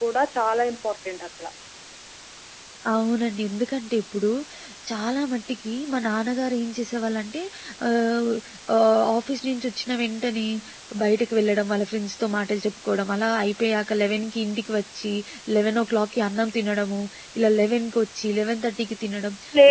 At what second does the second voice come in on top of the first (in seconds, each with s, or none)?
none